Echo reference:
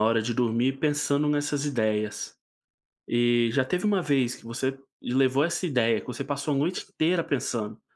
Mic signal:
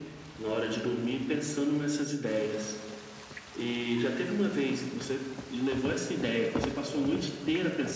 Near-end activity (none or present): none